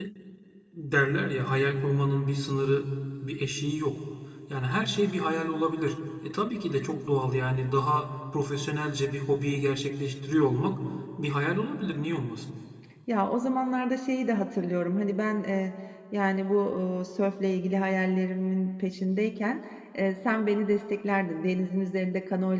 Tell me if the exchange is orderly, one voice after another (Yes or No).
Yes